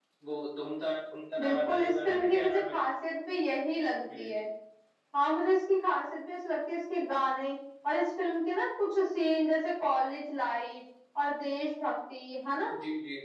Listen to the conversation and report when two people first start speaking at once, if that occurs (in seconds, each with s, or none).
1.4 s